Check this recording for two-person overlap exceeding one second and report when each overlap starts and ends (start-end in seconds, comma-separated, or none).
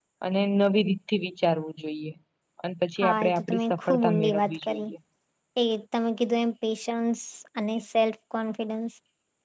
3.0-4.8